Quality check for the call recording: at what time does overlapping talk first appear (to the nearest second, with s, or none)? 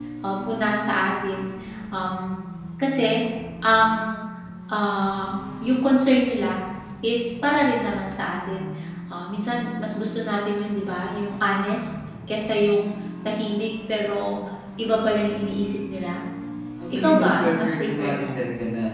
17 s